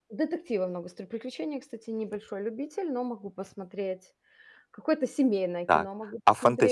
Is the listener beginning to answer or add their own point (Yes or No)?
Yes